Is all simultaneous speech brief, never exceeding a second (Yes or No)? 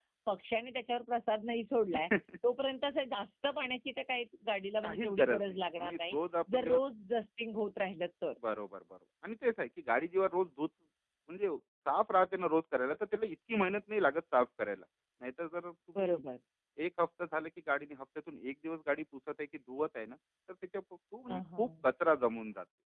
No